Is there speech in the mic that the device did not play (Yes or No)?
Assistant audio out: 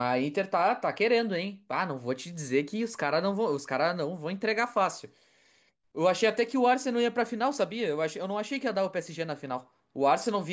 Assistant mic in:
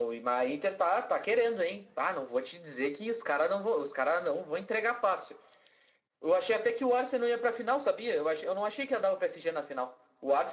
No